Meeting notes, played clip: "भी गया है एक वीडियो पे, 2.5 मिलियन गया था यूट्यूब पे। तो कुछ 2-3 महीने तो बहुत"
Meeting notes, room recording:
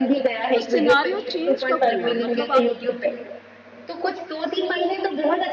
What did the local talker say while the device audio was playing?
तो सिनेरियो चेंज कब हुआ? मतलब आप

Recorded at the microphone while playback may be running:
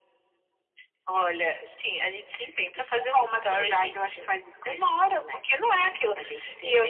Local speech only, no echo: none

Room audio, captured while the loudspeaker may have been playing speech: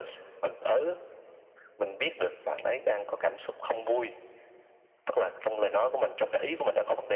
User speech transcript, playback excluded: none

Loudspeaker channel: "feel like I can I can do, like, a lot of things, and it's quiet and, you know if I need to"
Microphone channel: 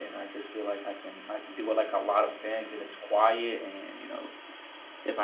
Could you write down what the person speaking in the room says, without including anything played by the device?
none

